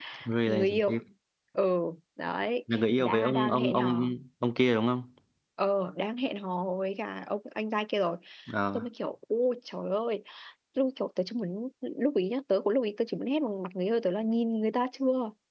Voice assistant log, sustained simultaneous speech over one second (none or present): present